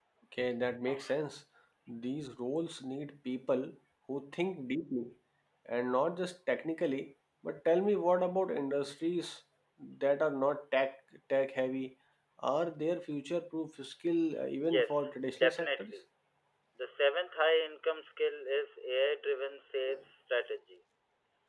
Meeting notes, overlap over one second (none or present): present